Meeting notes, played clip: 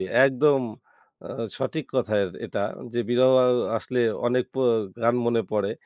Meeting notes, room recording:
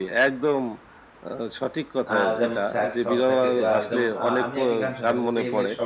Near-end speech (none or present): present